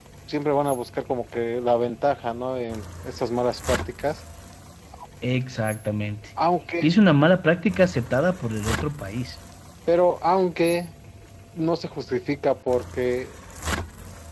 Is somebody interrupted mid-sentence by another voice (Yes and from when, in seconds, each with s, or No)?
No